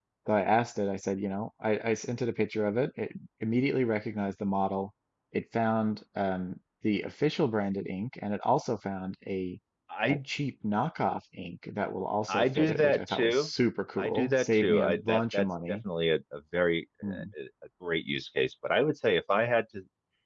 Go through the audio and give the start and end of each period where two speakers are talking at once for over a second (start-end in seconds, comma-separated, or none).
12.3-13.5, 14.0-15.8